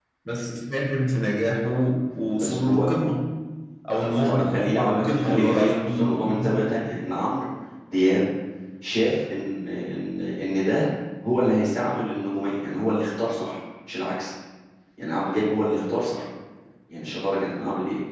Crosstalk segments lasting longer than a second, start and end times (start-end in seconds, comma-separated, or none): 4.2-6.6